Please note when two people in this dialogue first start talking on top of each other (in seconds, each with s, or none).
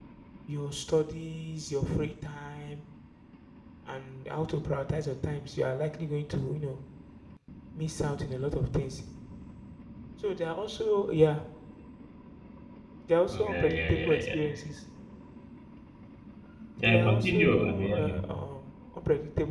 13.3 s